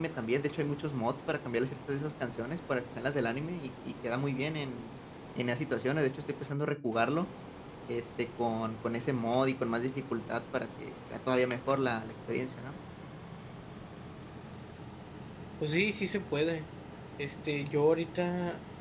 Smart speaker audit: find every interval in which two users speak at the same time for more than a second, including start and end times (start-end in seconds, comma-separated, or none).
none